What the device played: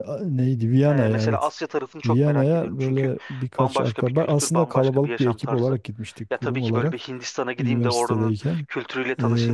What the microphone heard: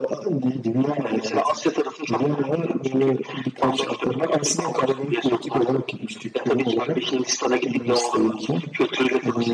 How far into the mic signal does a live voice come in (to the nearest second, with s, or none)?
none